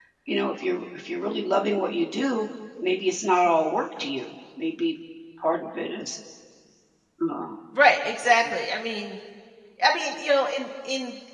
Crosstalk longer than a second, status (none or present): none